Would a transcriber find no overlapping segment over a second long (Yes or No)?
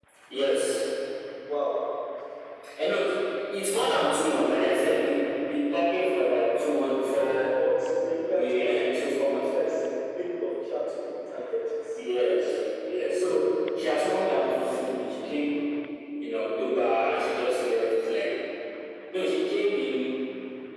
No